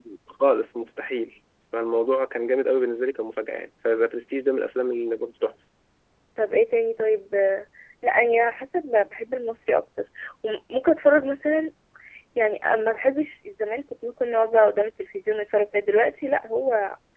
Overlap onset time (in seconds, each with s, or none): none